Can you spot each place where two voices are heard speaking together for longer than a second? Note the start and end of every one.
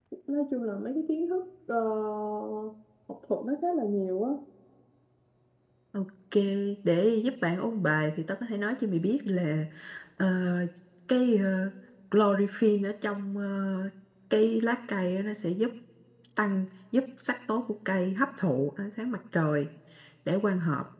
none

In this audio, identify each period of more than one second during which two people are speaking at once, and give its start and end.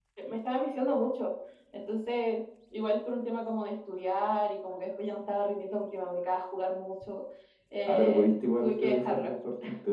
7.8-9.3

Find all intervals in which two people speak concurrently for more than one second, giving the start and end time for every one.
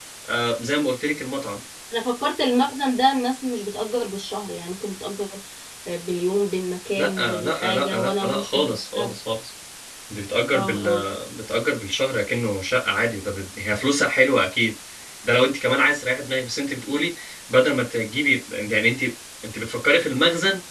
7.0-9.2

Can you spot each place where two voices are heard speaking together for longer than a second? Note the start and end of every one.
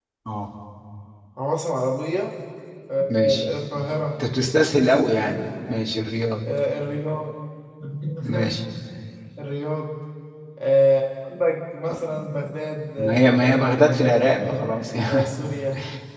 13.0-14.7

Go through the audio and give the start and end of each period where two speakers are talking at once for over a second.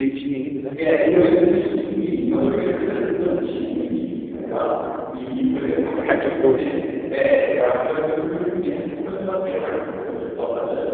5.4-6.7

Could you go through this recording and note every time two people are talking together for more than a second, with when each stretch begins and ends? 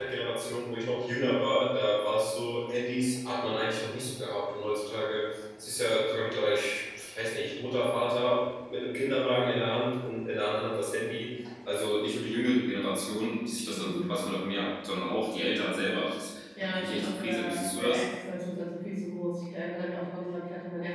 16.6-18.0

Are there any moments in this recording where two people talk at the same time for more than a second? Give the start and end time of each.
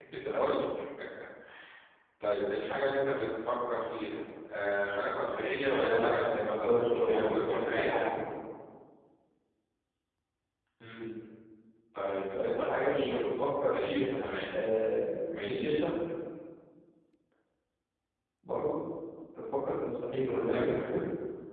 5.7-8.0, 12.3-14.5

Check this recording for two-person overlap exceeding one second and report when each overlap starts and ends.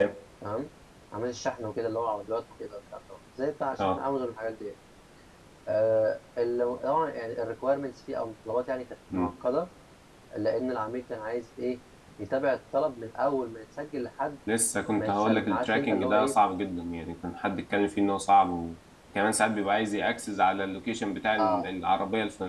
14.9-16.3

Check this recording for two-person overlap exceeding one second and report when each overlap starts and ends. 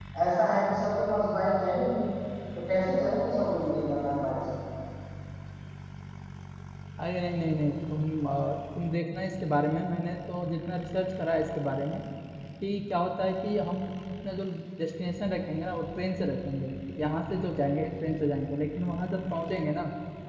none

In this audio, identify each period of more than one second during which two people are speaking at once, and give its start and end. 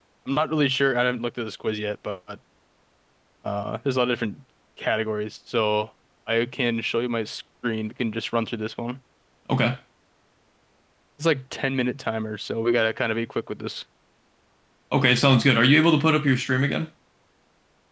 none

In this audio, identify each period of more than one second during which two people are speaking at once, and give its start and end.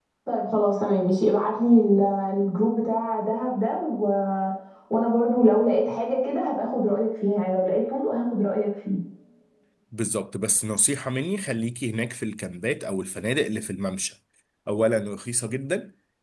none

